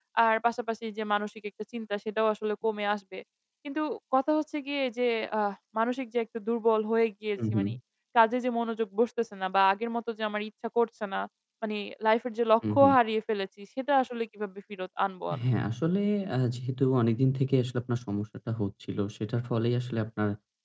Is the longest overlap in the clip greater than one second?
No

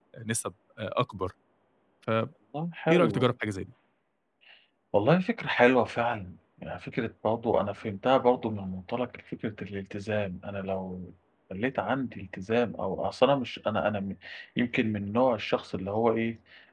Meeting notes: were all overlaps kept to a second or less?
Yes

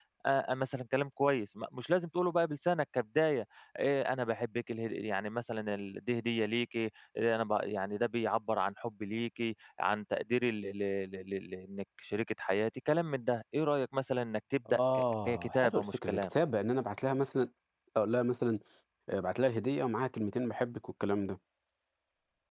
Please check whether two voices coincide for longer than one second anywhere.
Yes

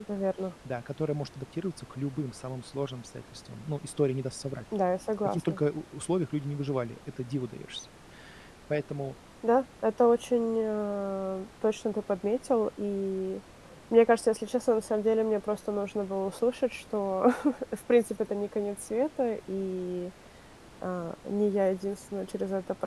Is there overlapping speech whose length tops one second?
No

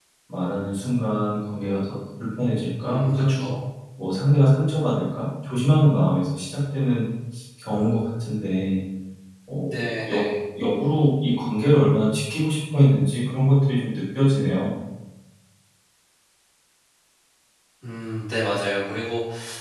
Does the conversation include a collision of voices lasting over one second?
No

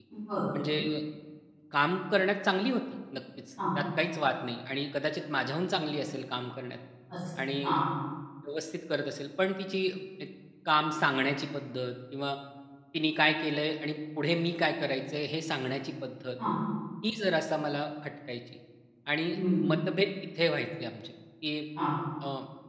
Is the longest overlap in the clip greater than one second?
No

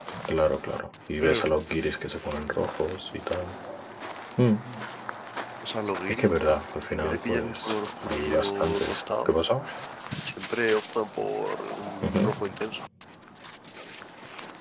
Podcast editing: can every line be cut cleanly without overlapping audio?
No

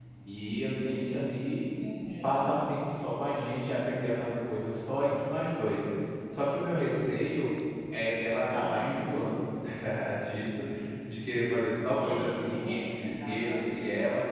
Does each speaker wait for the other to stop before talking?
No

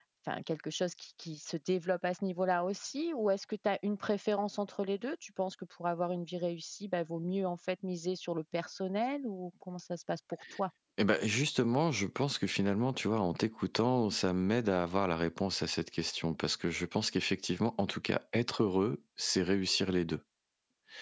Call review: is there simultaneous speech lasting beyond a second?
No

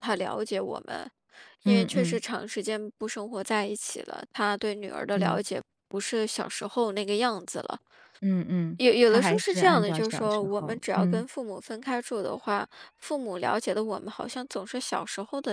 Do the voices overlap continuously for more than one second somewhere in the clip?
Yes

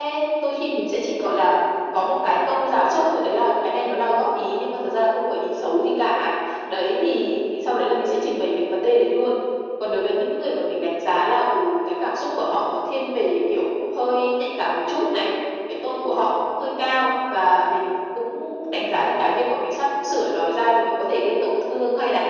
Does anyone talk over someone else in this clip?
No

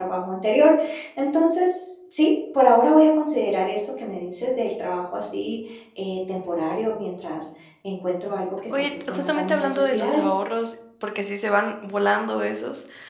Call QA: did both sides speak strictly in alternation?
No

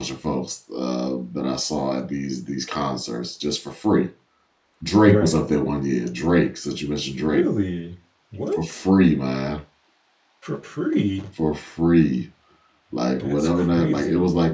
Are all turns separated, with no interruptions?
No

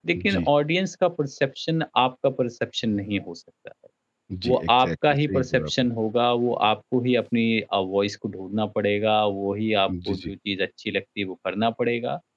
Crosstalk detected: Yes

